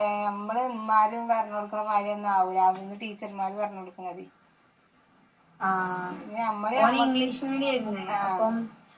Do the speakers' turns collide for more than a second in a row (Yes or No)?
No